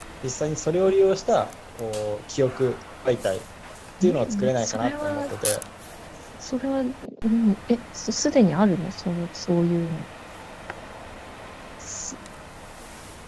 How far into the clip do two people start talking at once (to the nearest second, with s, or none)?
4 s